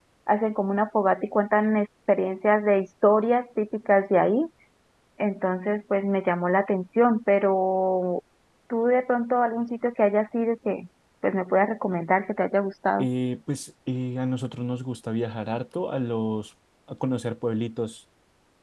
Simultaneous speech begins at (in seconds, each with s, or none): none